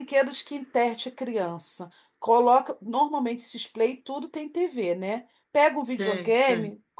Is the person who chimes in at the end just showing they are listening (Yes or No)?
Yes